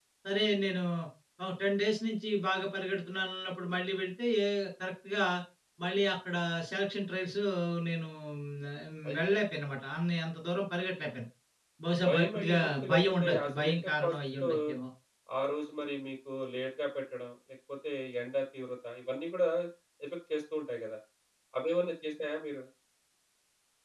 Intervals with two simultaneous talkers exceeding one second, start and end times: 12.1-14.5

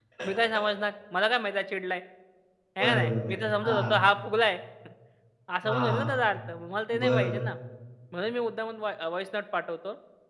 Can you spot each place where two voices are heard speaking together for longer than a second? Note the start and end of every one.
2.8-4.0

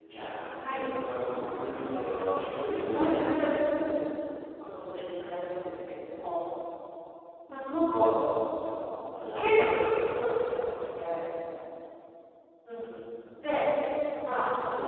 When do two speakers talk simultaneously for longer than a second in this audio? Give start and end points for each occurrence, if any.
1.7-3.1

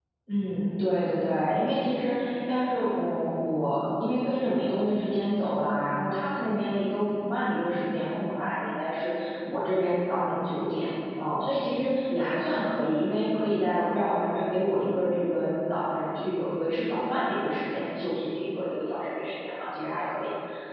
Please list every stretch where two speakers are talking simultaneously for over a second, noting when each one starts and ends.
none

